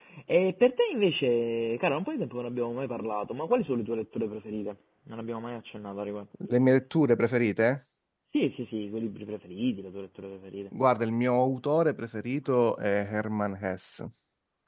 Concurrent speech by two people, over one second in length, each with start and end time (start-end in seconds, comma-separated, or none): none